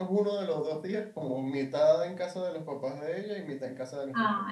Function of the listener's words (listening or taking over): taking over